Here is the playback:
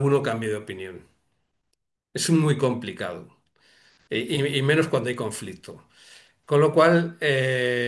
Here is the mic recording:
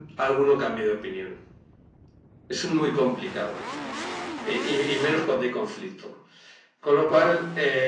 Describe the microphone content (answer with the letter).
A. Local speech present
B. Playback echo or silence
B